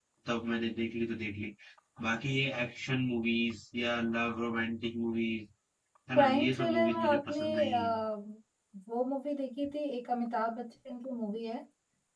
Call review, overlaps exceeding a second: present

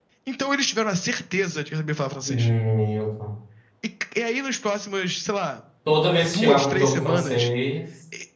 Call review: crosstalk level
present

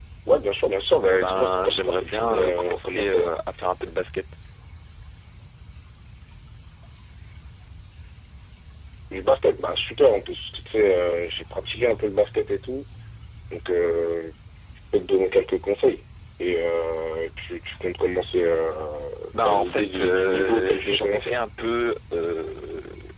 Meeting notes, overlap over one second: present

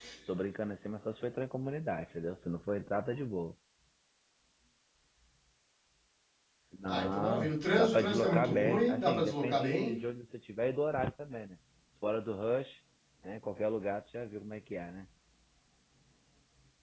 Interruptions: present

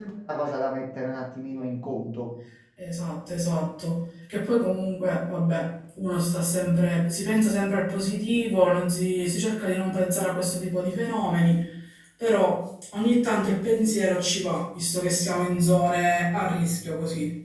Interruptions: none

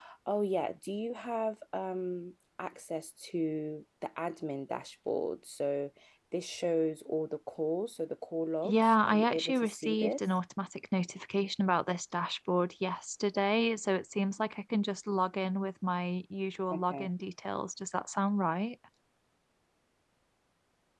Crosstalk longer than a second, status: present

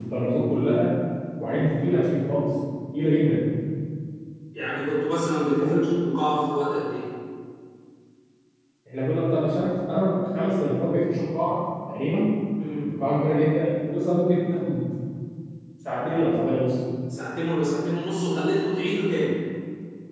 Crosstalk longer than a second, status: none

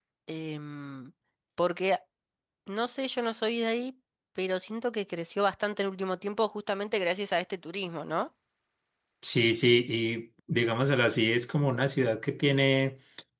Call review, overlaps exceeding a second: none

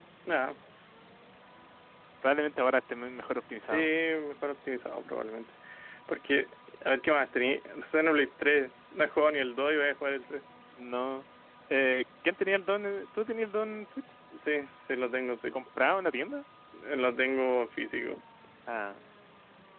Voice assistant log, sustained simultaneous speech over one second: none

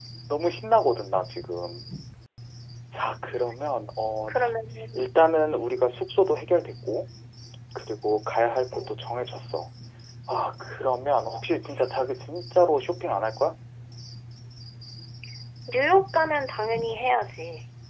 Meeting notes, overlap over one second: none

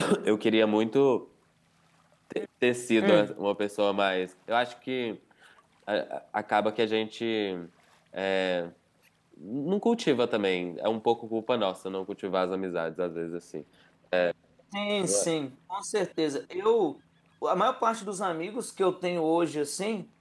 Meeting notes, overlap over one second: none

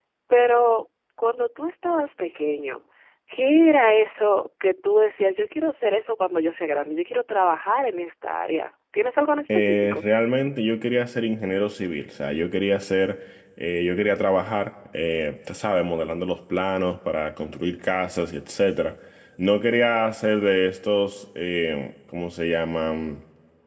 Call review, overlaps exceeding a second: none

